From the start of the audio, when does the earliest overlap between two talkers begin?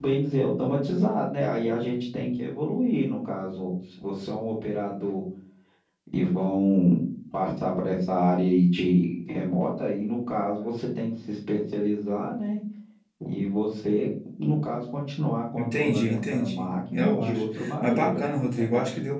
15.6 s

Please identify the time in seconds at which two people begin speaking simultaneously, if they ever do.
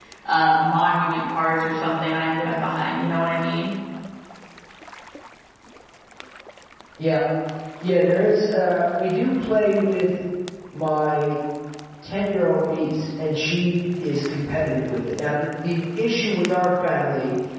none

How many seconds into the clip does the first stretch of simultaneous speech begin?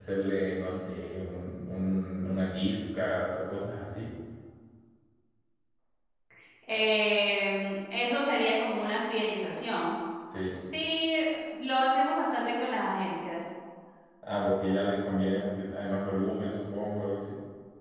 none

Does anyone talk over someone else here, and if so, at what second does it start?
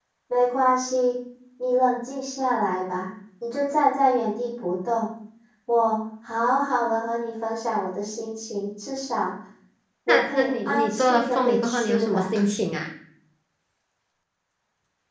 10.1 s

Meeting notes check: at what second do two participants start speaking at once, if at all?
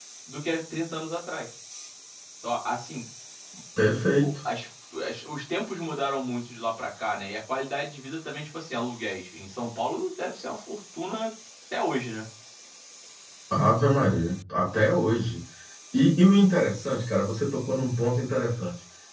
none

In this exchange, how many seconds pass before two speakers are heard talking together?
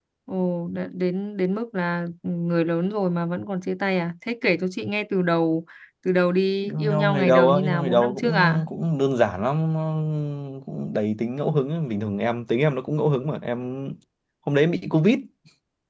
6.6 s

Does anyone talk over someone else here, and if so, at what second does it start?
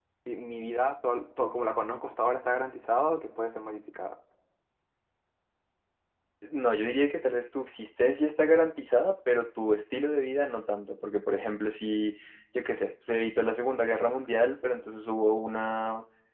none

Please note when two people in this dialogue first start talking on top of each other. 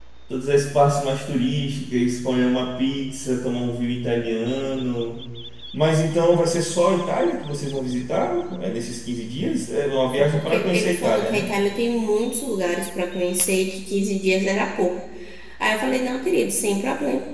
10.1 s

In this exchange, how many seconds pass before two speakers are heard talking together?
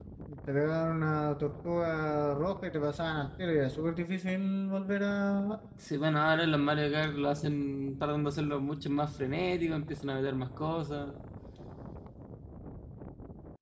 none

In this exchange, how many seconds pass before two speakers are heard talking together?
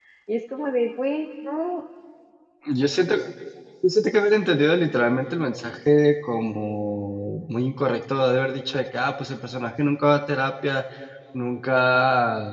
none

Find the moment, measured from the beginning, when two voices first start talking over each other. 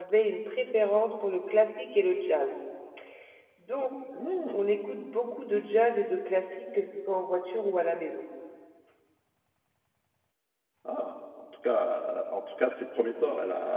none

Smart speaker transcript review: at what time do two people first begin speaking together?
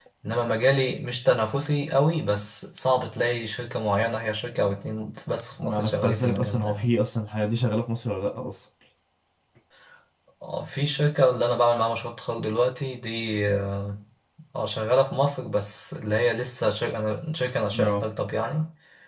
5.6 s

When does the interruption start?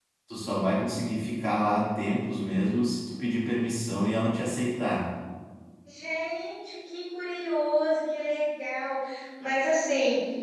none

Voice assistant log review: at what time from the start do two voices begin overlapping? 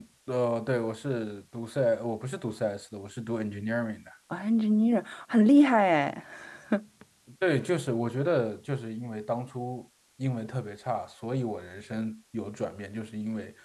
none

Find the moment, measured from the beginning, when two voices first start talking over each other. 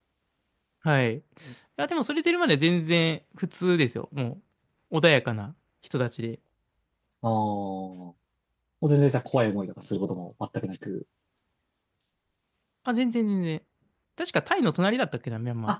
none

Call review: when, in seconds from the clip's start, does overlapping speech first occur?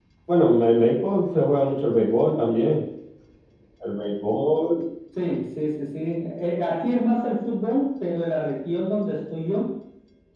none

